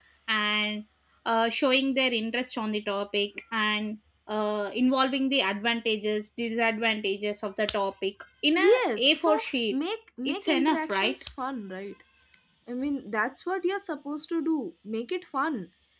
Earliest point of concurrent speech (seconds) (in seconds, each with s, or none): 8.6 s